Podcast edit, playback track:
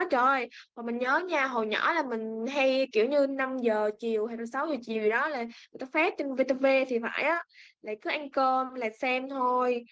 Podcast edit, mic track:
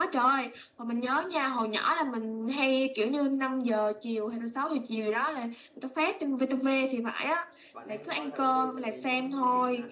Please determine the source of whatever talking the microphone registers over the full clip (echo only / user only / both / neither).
both